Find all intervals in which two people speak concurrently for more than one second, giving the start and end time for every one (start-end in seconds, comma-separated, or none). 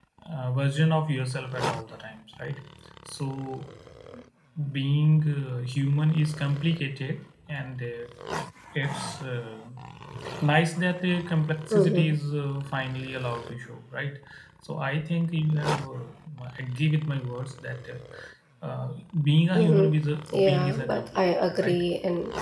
20.3-21.8